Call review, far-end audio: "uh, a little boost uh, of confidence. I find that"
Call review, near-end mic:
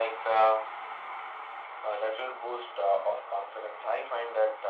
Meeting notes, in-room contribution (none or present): none